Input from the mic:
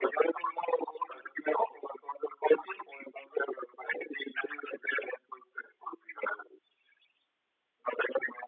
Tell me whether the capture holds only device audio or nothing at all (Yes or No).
Yes